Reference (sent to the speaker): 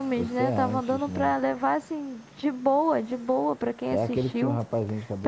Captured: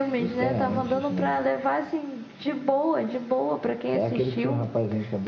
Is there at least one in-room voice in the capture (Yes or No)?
Yes